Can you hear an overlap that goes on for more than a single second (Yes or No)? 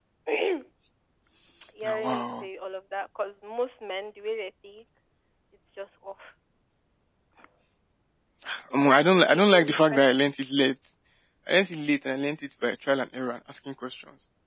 Yes